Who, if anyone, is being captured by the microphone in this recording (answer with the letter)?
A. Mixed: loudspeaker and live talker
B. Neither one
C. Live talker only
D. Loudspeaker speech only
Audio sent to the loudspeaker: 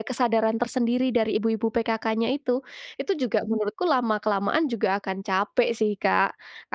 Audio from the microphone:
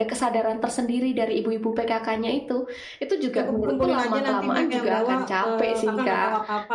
A